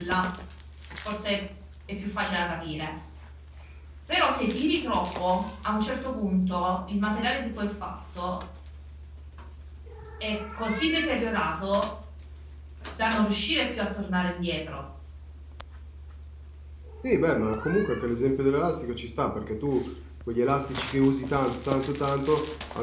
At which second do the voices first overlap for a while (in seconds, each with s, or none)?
none